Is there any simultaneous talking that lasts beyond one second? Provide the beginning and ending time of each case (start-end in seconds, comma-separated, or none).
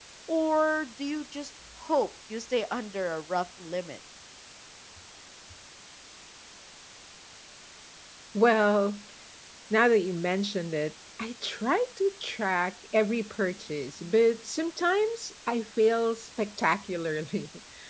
none